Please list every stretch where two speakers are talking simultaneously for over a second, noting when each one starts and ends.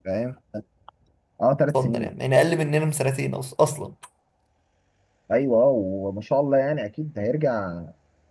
none

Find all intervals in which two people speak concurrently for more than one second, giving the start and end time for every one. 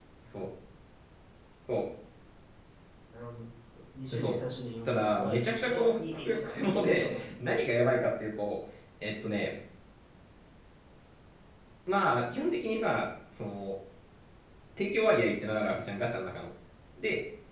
4.8-7.3

